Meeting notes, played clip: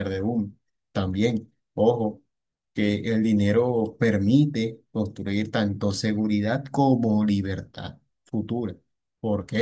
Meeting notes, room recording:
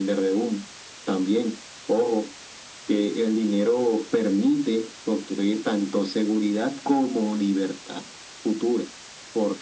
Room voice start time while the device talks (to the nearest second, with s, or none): none